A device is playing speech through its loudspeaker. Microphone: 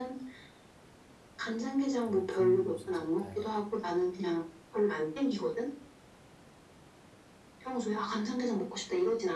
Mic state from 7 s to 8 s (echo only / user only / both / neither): echo only